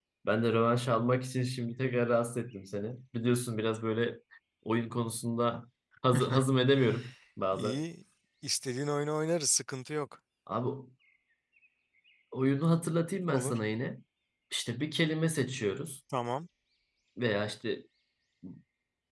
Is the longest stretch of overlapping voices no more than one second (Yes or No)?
Yes